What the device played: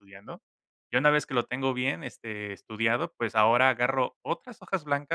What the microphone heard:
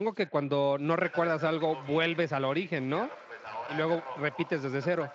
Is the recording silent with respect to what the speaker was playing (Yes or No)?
No